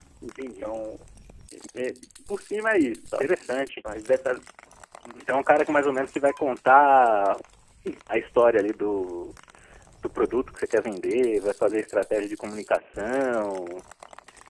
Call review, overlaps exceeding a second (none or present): none